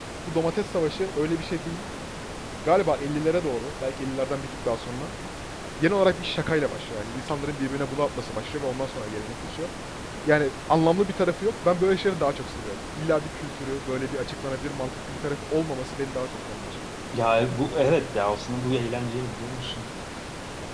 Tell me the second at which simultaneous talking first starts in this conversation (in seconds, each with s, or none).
none